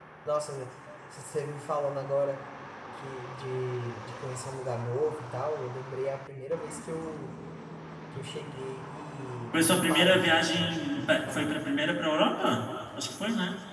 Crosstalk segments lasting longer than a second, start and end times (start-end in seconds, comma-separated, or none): 9.5-10.8